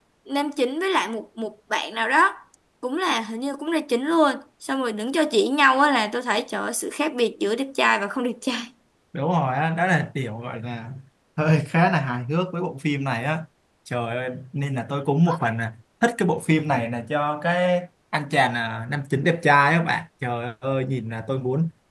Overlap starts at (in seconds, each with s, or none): none